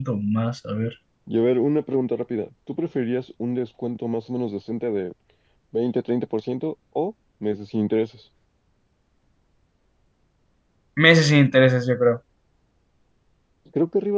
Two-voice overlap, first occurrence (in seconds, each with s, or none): none